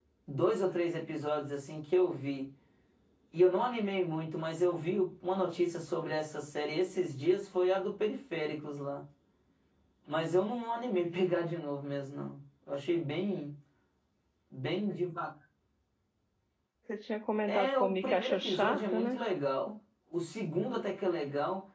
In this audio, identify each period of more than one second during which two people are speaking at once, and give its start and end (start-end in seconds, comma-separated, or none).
17.5-19.2